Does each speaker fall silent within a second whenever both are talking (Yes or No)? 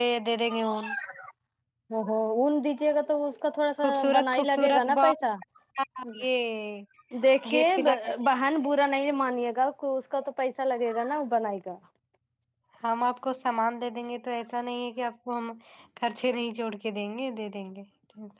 No